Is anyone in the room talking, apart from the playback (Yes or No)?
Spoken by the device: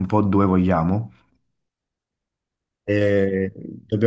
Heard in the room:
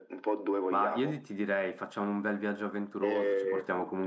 Yes